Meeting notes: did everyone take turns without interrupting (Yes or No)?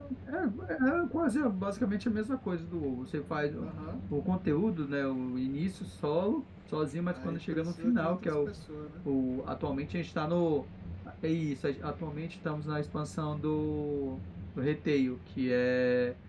No